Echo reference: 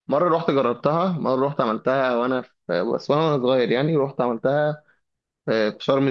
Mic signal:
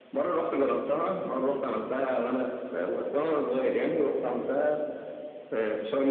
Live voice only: none

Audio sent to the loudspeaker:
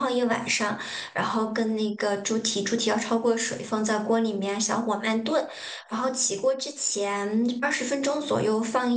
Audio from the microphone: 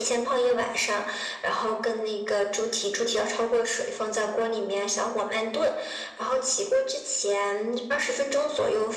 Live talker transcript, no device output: none

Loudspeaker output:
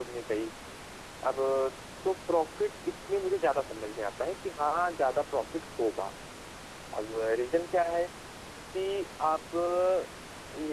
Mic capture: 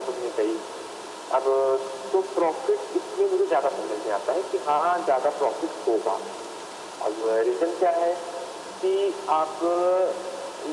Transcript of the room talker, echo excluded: none

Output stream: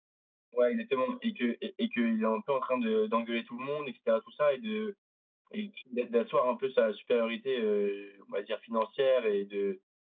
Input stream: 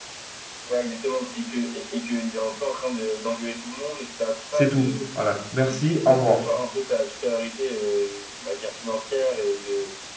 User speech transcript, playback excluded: c'est tout. Voilà, merci, au revoir.

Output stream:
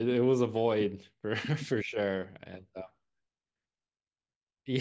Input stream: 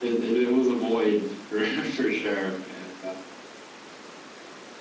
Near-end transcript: none

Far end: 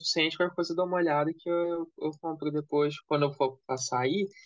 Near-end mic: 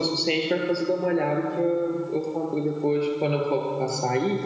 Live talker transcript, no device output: none

